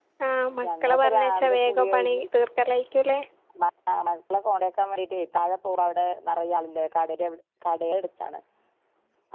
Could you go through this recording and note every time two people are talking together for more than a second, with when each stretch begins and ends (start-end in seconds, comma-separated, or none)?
0.6-2.2